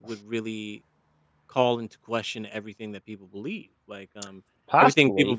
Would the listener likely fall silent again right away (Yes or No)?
Yes